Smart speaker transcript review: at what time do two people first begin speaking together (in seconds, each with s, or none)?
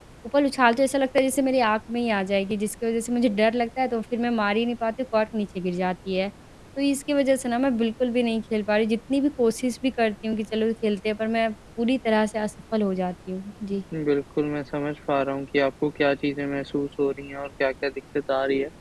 none